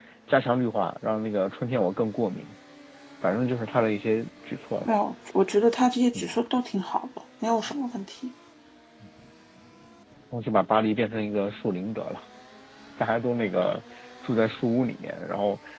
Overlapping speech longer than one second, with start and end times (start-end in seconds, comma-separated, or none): none